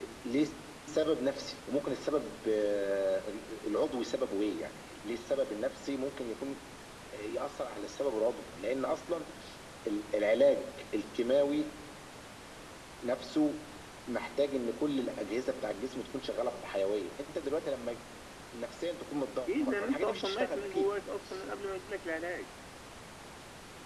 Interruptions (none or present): present